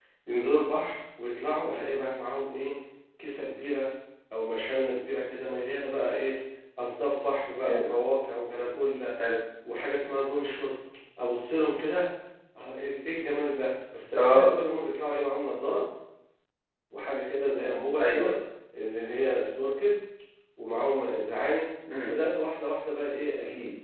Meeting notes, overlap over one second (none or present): none